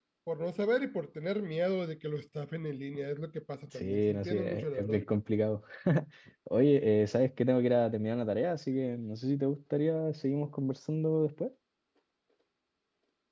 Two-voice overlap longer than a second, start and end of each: 3.8-5.0

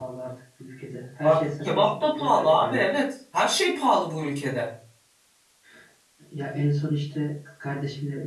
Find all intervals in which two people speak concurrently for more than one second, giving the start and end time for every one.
1.2-2.8

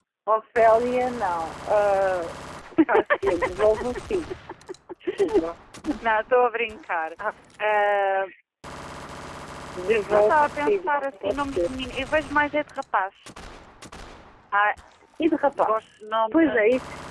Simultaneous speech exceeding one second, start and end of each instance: 10.1-11.7

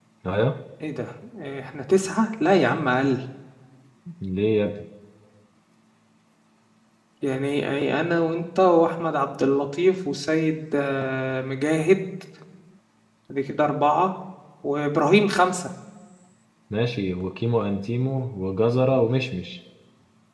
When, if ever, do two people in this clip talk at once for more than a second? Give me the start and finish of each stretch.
none

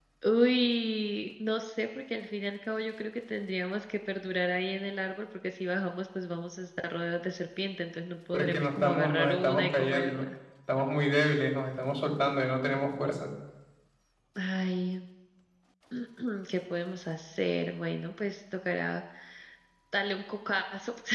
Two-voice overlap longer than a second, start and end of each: 8.3-10.3

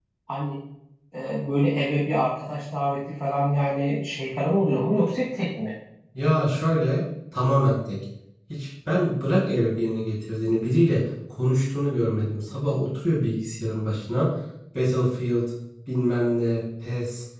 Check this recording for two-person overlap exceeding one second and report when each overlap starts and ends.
none

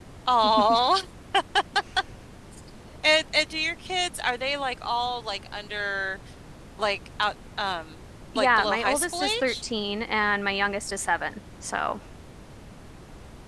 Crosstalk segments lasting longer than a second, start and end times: 8.4-9.6

